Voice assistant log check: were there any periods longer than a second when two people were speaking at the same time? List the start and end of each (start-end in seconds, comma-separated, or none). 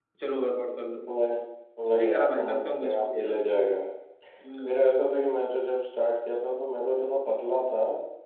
1.9-3.3